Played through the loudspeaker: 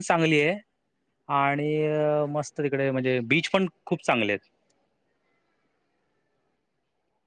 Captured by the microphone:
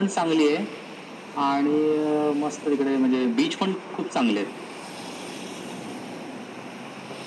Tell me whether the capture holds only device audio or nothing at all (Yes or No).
Yes